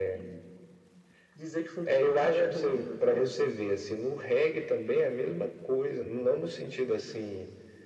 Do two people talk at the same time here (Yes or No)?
Yes